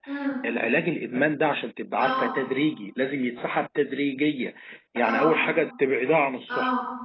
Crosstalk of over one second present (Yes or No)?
No